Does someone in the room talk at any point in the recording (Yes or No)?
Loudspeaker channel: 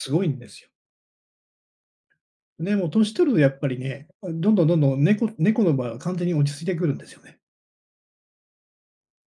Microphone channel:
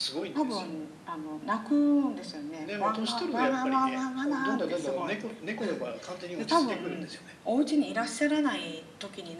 Yes